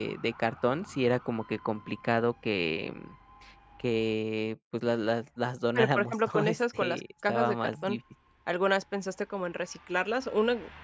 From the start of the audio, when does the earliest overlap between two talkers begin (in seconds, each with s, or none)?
5.8 s